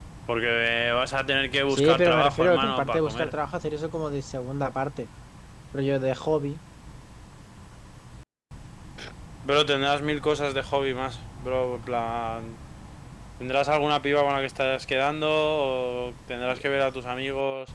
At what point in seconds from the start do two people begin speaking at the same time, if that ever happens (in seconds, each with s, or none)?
1.7 s